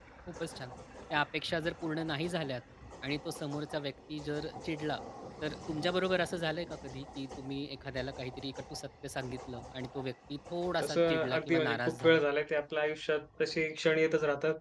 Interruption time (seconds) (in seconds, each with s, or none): 10.8 s